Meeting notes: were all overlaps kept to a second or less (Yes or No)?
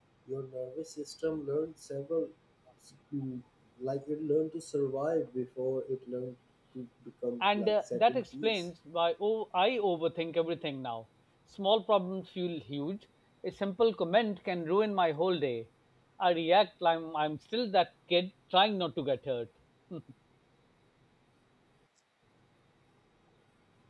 No